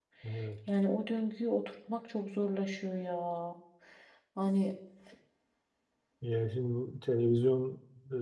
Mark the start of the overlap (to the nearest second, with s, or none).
none